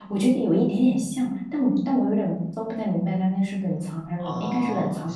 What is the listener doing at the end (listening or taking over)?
taking over